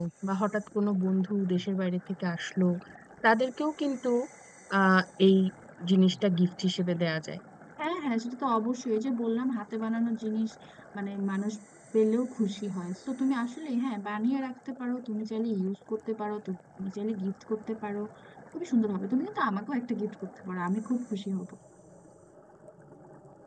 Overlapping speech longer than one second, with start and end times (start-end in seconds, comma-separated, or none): none